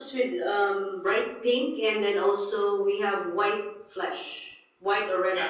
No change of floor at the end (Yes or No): No